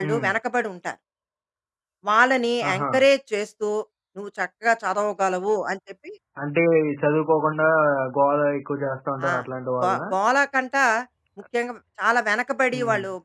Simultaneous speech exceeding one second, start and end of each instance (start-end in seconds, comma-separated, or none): none